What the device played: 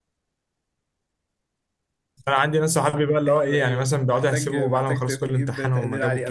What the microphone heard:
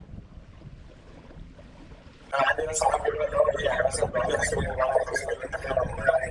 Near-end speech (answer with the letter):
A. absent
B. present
A